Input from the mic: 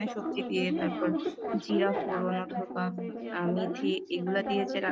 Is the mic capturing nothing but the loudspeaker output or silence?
No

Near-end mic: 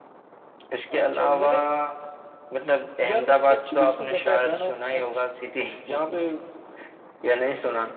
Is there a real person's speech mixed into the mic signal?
No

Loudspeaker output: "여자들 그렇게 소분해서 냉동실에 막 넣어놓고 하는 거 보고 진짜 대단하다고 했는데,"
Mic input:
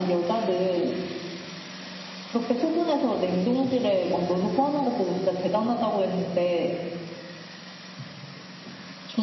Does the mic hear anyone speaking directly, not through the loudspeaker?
No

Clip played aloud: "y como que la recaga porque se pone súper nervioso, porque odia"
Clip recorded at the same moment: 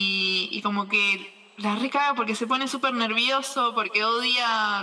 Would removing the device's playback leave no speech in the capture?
Yes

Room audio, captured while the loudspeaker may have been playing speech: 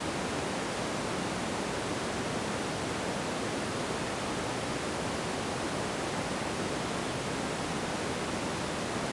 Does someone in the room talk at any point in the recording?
No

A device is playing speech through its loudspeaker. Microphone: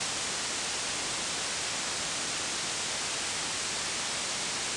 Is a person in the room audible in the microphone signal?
No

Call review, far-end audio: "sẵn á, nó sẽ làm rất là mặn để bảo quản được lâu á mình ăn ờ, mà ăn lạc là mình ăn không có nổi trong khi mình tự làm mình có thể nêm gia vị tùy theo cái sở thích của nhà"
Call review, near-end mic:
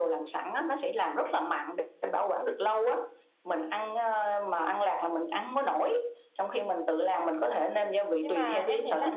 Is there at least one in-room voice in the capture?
Yes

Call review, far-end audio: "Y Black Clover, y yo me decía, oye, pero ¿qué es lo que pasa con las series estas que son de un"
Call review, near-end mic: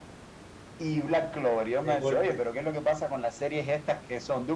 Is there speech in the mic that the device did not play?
Yes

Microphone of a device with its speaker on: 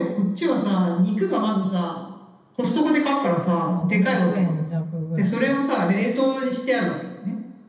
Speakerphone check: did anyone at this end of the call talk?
Yes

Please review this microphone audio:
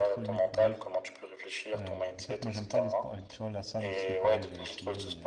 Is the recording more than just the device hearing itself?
Yes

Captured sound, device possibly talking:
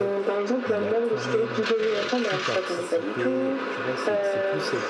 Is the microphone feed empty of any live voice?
No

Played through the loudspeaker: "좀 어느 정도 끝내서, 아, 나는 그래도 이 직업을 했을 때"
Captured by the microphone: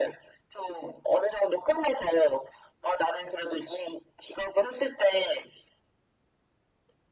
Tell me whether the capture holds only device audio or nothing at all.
Yes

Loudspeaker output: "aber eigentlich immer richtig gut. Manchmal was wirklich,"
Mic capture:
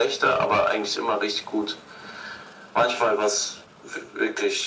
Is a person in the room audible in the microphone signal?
No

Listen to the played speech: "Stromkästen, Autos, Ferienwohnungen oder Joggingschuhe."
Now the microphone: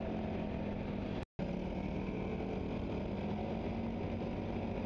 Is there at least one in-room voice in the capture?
No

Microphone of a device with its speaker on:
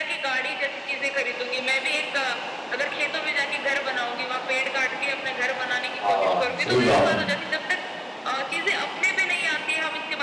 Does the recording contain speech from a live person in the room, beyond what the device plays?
Yes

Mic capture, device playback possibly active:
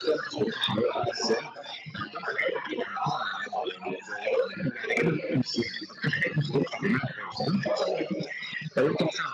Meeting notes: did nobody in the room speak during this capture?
Yes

